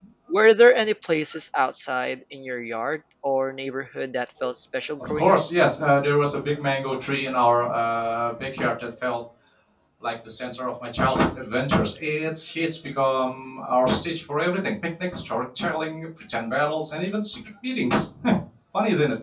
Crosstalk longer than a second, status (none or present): none